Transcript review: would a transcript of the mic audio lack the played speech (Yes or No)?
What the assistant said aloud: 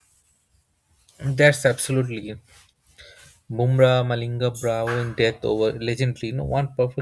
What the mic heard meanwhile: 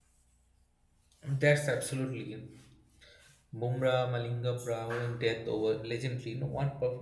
No